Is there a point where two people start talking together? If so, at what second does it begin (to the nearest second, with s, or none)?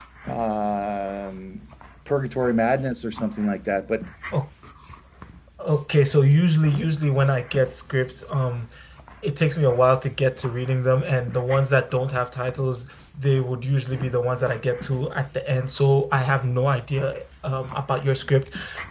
none